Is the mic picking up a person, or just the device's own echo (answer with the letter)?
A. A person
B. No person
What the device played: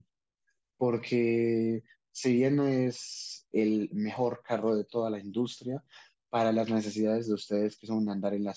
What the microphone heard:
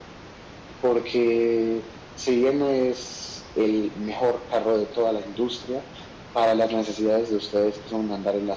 B